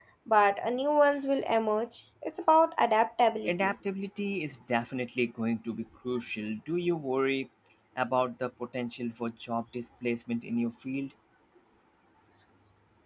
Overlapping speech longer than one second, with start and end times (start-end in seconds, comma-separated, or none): none